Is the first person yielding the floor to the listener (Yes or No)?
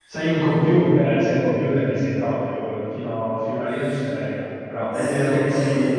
Yes